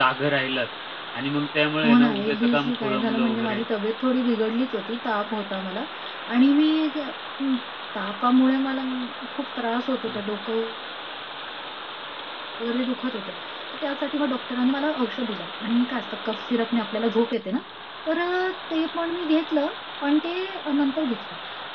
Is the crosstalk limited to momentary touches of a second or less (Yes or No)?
No